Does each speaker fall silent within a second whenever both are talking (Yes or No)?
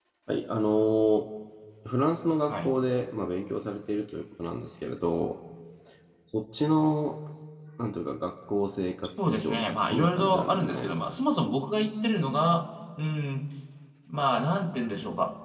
No